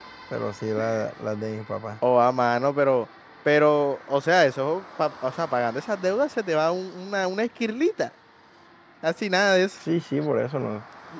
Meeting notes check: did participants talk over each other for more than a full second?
No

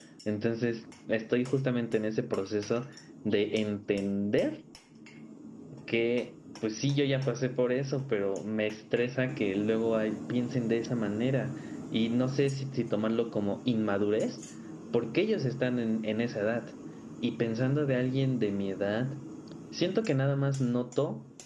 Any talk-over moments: No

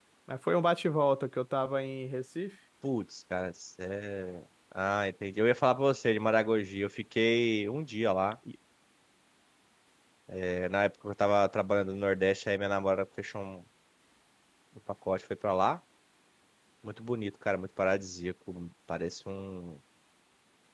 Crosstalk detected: No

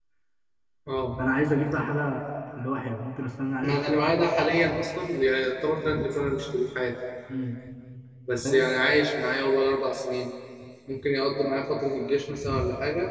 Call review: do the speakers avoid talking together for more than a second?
Yes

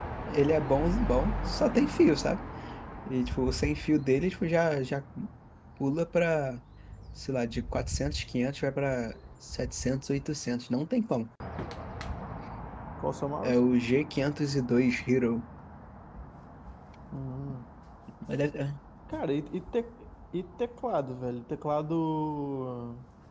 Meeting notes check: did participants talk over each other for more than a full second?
No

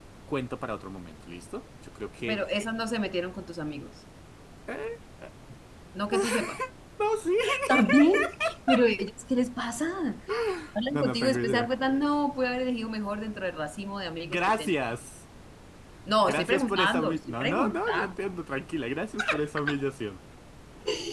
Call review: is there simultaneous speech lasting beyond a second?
Yes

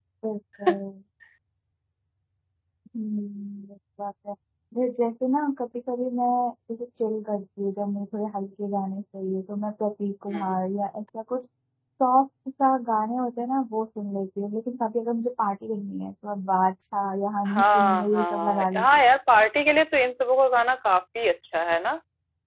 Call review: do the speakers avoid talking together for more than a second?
No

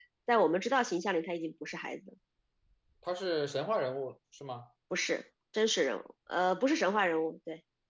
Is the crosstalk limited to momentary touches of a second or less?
Yes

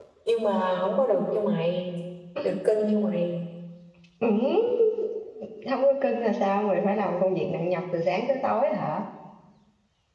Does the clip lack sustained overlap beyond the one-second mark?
Yes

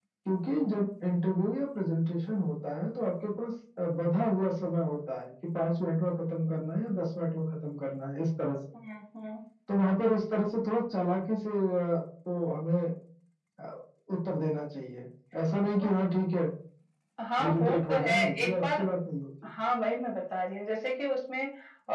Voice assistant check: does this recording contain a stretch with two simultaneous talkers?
Yes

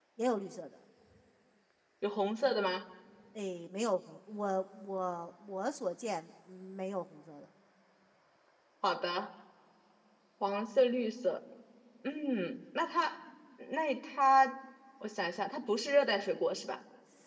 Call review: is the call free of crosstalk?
Yes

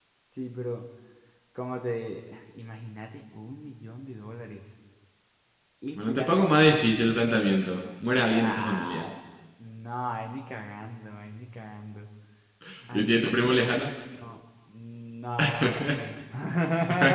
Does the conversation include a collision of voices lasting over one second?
Yes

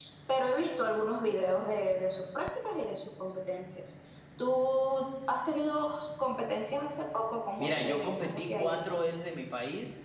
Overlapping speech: Yes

